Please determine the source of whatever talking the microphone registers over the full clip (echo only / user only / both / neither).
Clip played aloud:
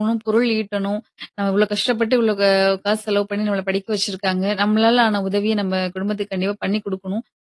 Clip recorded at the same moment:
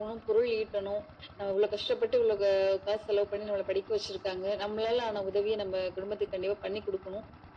echo only